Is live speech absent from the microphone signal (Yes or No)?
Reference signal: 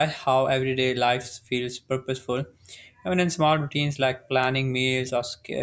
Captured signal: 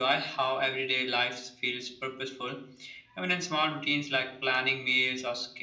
Yes